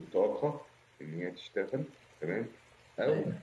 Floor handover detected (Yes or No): No